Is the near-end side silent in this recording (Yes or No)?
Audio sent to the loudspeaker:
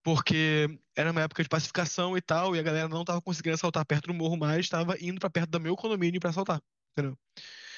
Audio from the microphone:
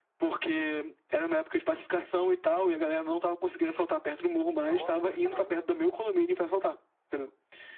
No